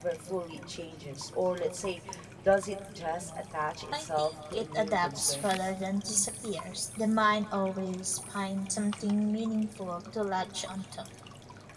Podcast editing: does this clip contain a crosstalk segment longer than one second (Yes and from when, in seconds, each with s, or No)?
Yes, from 3.9 s